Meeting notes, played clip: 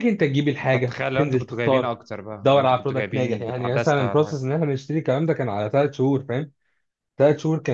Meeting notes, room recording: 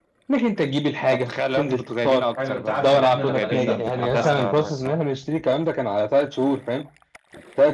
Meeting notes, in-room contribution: present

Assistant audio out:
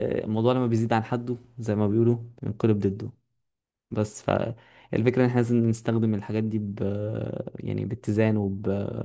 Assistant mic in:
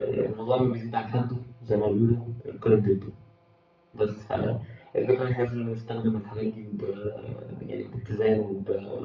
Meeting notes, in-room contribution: none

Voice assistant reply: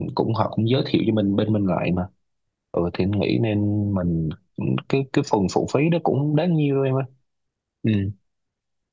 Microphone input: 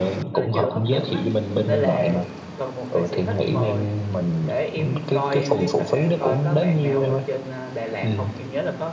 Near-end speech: present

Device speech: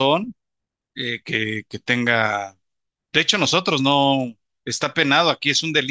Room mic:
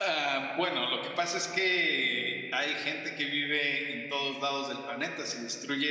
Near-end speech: present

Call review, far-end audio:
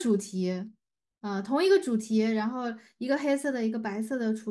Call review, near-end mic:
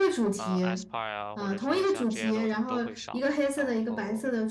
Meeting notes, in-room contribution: present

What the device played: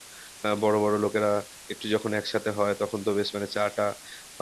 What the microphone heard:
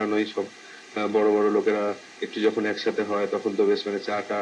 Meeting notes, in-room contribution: none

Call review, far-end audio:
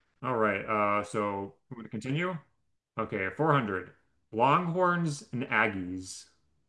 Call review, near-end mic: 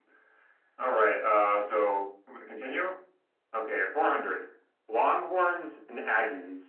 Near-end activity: none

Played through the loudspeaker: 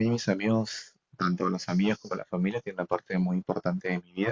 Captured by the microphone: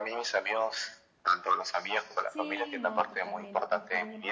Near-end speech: present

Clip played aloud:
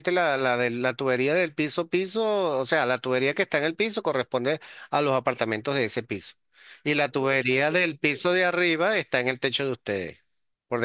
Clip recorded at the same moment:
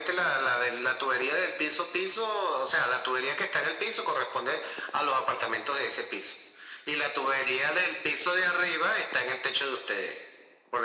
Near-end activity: none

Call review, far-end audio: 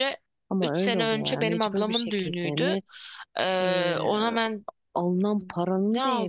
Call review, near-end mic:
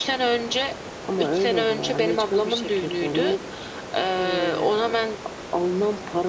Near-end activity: none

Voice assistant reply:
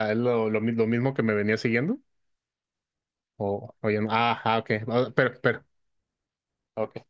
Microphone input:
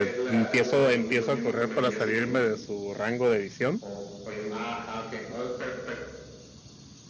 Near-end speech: present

